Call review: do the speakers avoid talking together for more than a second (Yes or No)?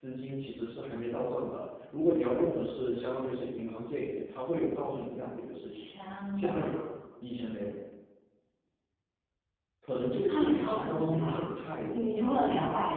No